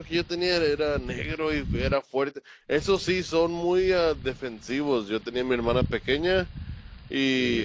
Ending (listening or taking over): listening